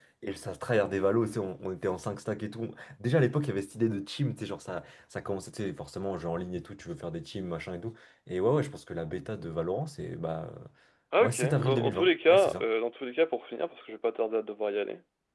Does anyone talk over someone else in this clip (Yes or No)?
Yes